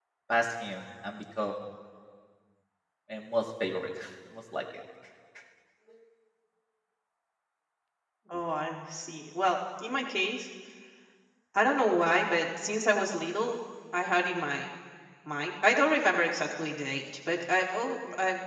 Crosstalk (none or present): none